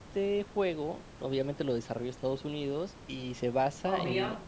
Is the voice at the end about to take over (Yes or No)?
No